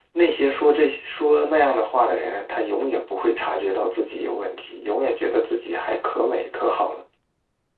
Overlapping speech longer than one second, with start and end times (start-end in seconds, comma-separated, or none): none